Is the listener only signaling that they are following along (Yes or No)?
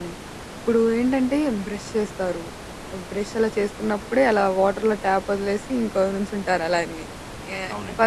Yes